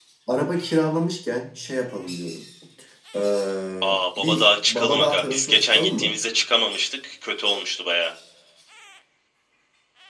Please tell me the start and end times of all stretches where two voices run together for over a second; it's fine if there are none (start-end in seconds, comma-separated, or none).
3.8-6.1